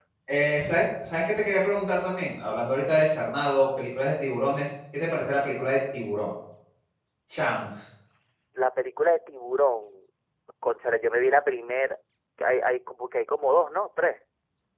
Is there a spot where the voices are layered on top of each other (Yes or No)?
No